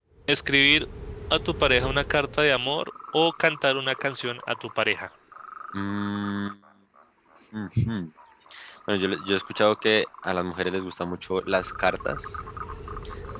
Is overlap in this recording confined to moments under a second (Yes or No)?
Yes